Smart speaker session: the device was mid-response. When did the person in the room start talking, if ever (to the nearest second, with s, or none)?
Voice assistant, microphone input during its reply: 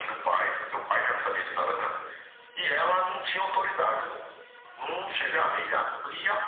none